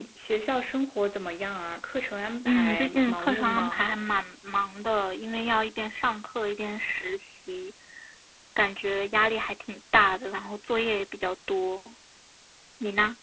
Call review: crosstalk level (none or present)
present